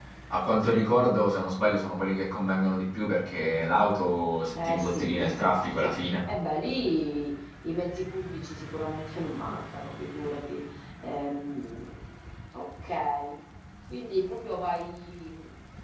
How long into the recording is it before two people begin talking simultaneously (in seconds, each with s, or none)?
4.6 s